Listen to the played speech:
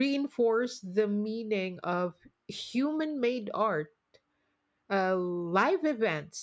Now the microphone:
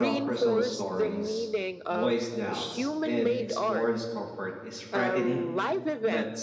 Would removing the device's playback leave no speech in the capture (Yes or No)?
No